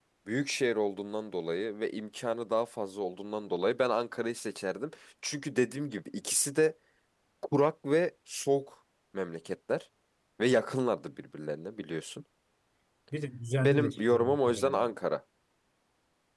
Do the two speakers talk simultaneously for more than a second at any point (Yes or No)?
Yes